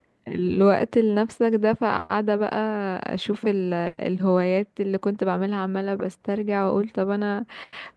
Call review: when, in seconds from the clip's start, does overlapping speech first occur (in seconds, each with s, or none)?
none